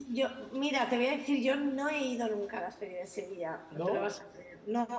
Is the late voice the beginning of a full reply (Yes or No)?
No